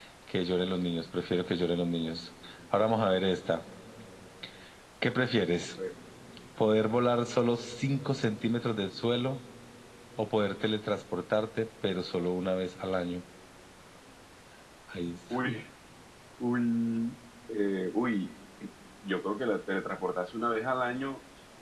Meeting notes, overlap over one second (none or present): none